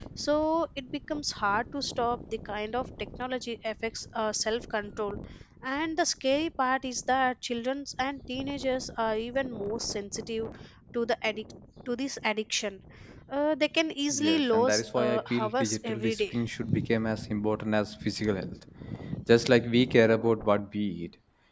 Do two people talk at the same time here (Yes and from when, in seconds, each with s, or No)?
Yes, from 14.1 s